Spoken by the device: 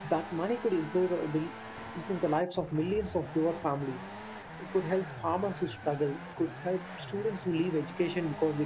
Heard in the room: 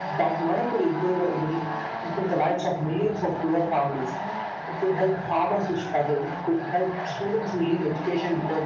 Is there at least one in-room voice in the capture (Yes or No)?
No